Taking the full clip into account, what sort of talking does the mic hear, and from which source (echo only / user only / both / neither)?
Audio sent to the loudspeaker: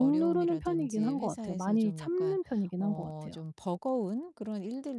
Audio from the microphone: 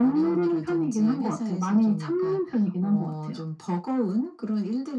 echo only